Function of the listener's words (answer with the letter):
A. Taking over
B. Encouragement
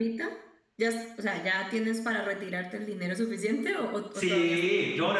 A